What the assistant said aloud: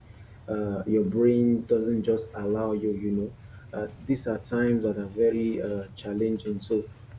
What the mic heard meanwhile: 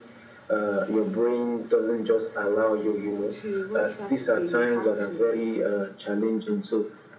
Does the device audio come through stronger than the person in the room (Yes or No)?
Yes